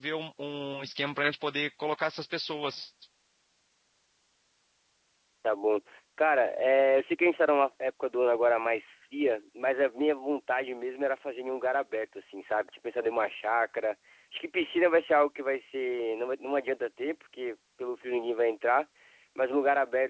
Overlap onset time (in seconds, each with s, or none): none